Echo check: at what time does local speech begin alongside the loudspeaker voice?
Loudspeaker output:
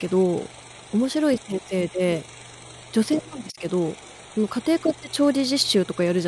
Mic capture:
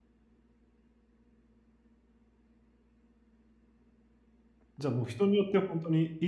4.8 s

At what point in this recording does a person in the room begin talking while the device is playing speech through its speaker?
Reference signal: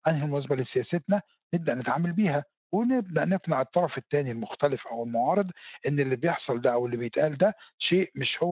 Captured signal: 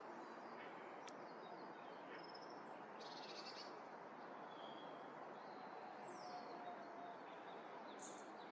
none

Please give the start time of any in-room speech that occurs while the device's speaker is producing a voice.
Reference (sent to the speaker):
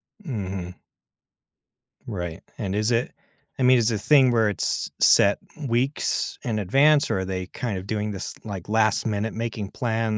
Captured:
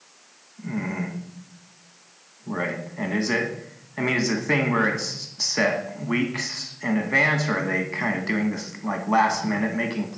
none

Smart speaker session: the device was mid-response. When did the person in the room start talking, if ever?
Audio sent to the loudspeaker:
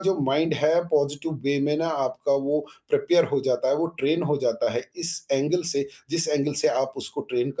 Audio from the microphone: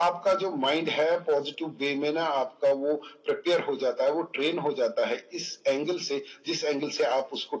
none

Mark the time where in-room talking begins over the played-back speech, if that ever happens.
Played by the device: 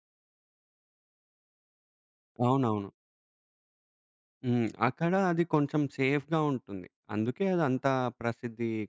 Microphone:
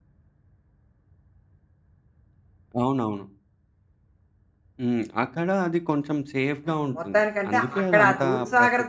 6.7 s

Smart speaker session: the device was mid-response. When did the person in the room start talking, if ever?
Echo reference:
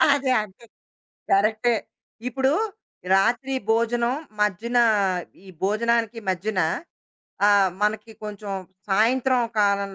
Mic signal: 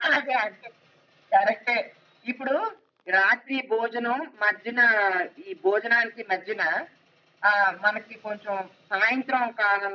none

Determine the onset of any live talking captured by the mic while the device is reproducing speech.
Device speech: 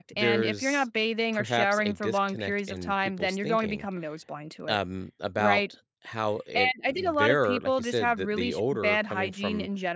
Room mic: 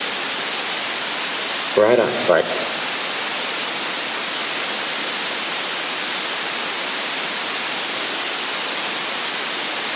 1.8 s

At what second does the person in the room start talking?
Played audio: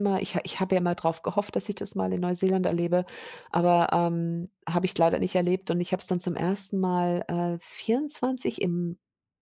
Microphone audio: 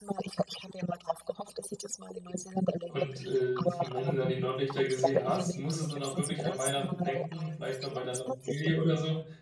2.9 s

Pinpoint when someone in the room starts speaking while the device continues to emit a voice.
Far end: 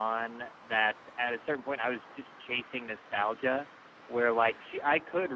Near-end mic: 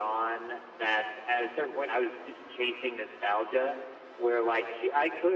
none

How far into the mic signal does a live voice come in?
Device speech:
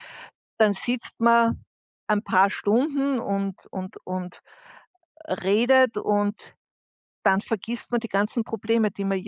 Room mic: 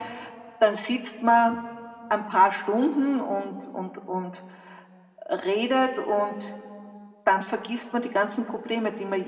none

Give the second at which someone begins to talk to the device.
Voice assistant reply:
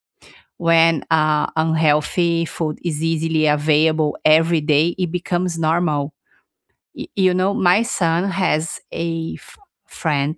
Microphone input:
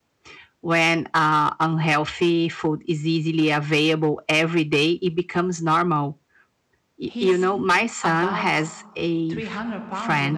7.1 s

